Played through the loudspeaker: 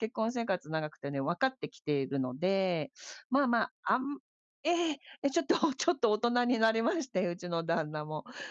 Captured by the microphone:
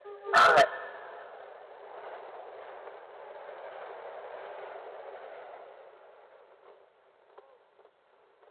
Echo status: none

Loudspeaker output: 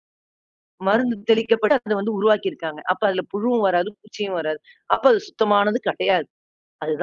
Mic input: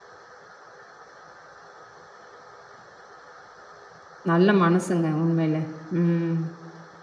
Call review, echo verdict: none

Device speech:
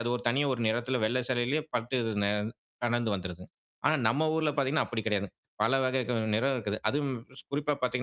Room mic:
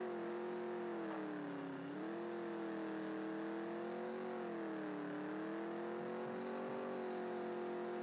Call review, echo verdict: none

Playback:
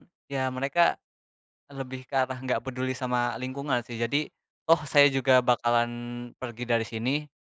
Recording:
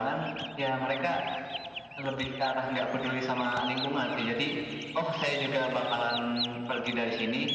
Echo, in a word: present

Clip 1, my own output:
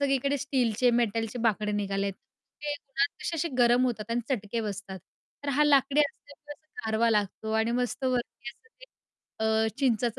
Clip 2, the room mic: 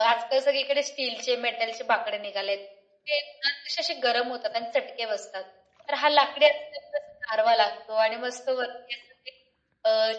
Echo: present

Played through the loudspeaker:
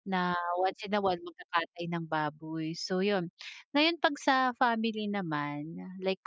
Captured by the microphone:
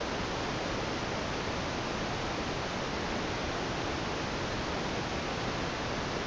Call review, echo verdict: none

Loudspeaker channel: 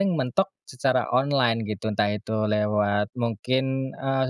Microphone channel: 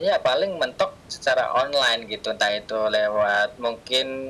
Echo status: present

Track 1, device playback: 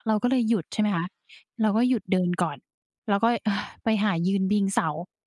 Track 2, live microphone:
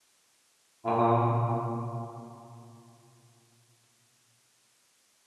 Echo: none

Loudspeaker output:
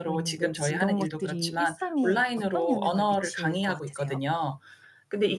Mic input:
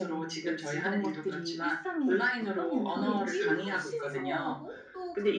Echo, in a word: present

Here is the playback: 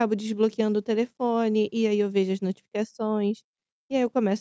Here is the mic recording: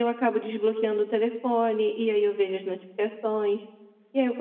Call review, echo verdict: present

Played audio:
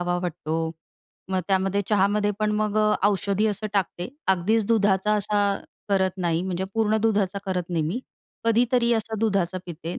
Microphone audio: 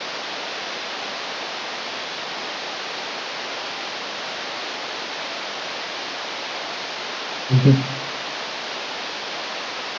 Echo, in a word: none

